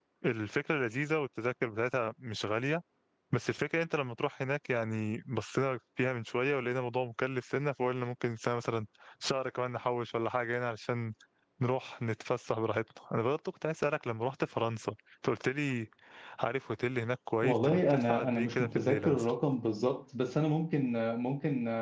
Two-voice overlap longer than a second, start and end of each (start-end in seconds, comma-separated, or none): 17.4-19.3